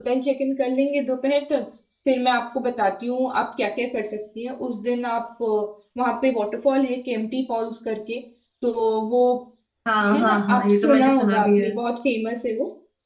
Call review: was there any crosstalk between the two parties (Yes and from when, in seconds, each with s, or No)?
Yes, from 10.1 s